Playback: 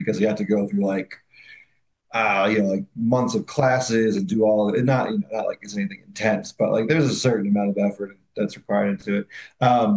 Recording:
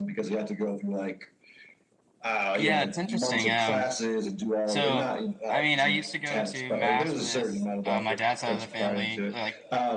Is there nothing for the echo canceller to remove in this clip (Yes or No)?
No